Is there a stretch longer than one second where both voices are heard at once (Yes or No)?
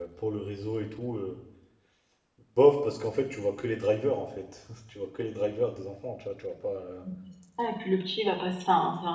No